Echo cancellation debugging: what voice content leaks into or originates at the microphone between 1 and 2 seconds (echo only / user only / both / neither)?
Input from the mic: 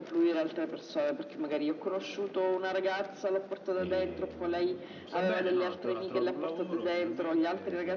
echo only